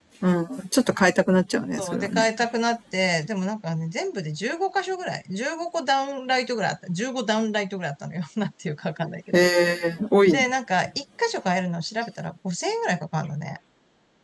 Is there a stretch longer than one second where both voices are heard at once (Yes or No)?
No